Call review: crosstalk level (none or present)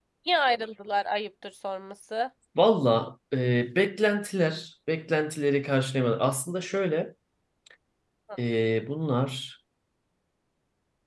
none